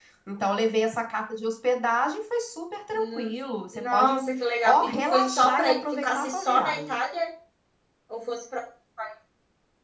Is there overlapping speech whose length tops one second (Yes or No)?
Yes